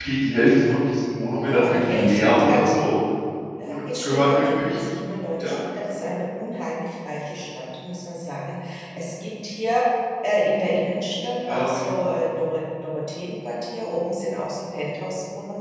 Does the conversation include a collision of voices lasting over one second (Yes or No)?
Yes